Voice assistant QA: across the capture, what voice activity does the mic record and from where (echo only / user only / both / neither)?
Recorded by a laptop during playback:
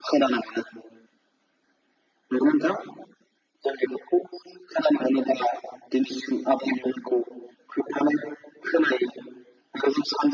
echo only